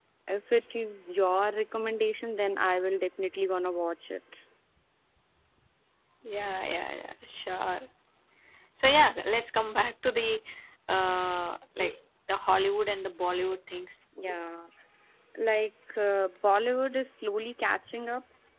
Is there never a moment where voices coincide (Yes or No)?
Yes